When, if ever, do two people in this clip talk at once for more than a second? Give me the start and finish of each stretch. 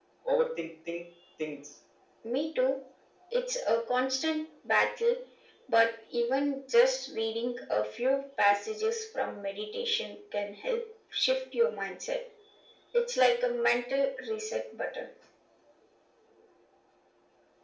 none

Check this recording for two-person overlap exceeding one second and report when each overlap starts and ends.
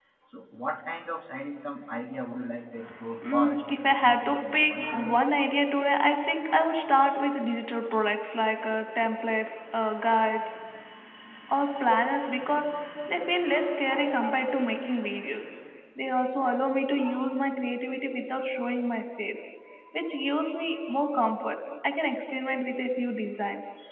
3.2-5.2

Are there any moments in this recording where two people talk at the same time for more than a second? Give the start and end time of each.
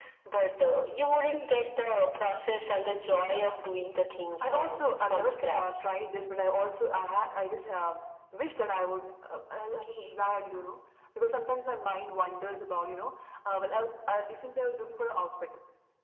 4.4-5.8

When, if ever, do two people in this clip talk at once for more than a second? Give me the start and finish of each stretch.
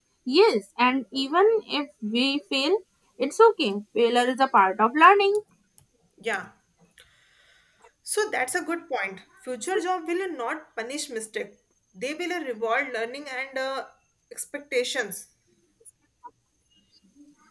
none

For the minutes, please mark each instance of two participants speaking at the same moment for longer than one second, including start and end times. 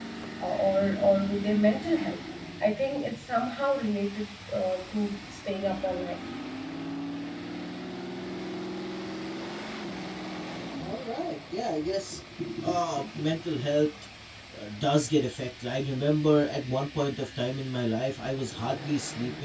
none

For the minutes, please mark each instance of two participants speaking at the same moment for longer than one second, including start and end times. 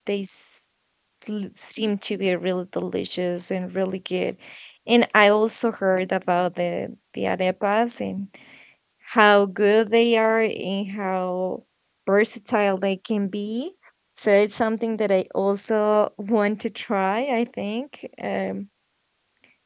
none

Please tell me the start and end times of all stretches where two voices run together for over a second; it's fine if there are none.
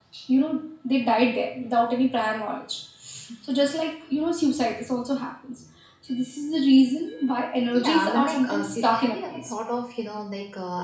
7.7-9.5

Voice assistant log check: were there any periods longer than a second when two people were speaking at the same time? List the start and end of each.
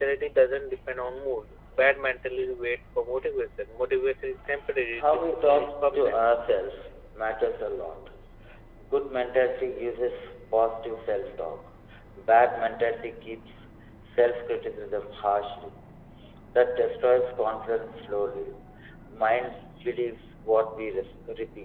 4.9-6.2

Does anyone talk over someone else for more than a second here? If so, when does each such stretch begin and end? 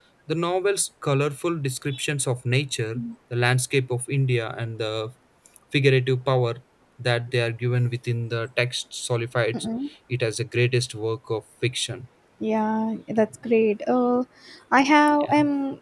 none

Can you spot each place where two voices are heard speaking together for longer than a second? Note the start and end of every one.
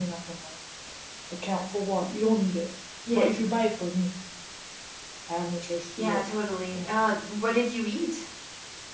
none

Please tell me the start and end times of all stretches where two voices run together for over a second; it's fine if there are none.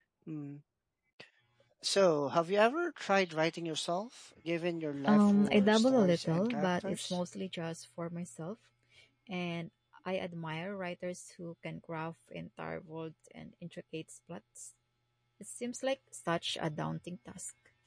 5.1-7.2

